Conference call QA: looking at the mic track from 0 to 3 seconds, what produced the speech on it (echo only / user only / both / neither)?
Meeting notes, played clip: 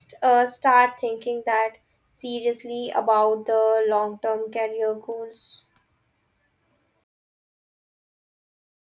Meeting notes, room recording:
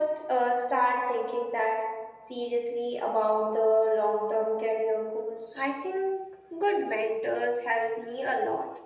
echo only